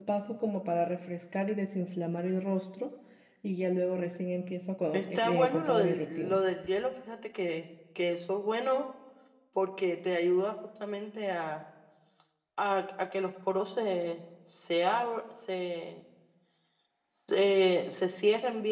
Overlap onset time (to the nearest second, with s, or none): 5 s